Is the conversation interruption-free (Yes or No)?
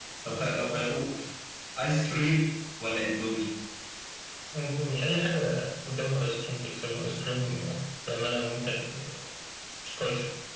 Yes